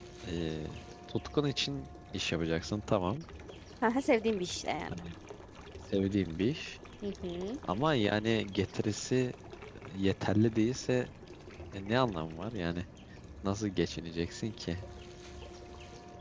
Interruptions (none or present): none